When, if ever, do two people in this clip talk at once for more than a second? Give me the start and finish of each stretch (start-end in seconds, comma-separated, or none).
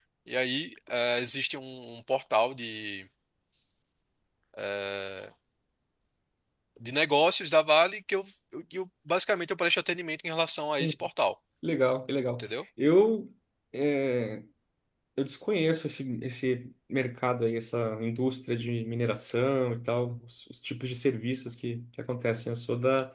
none